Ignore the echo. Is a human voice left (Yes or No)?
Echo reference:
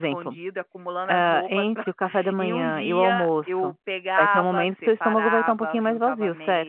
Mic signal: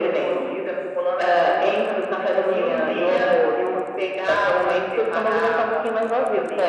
No